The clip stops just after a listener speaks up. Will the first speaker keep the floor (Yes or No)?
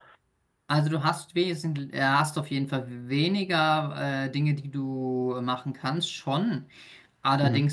Yes